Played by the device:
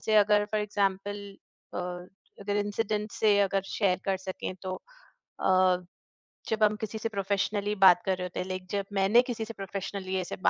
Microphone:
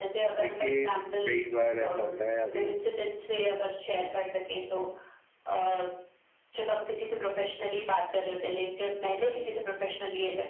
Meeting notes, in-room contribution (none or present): present